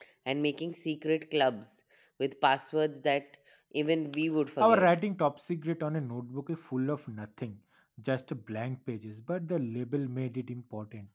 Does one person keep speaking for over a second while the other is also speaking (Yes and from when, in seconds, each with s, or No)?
No